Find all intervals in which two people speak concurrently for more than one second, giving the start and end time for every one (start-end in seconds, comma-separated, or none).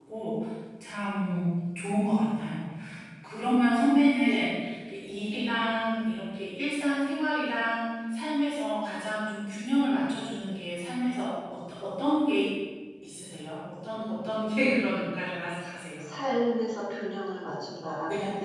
none